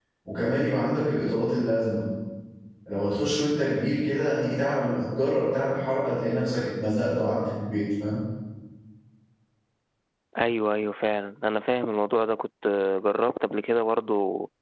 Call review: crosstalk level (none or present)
none